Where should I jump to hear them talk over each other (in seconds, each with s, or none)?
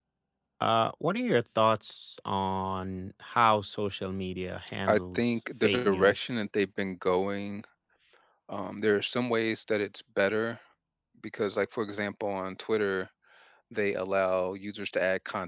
4.9 s